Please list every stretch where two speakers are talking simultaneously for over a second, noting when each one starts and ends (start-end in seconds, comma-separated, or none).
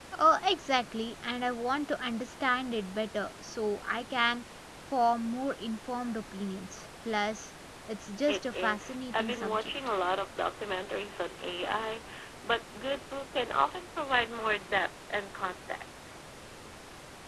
8.3-9.7